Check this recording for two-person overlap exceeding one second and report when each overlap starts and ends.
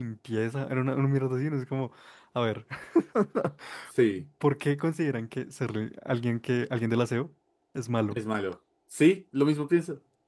none

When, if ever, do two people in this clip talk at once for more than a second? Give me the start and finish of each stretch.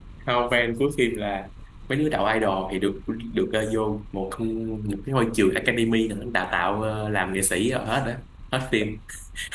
none

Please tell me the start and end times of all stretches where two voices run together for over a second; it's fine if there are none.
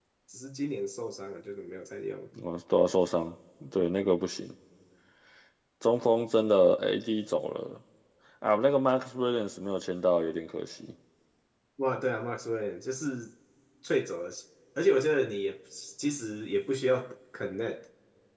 none

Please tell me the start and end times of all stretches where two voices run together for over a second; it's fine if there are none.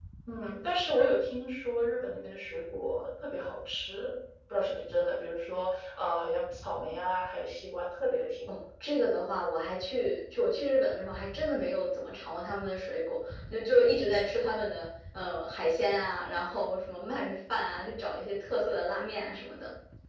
none

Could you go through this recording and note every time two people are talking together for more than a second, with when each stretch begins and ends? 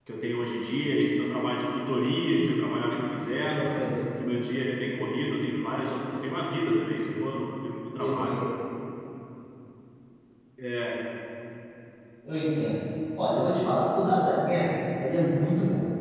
none

